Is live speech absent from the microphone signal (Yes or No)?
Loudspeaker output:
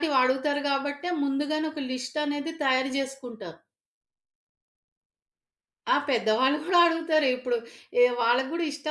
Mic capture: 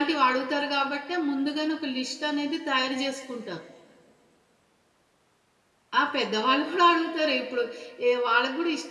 Yes